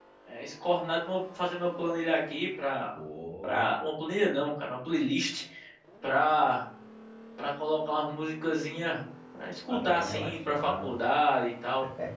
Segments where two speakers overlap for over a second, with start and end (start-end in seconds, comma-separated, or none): 9.7-10.9